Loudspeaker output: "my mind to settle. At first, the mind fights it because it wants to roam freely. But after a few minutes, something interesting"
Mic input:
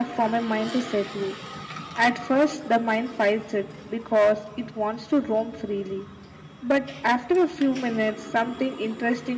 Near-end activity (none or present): none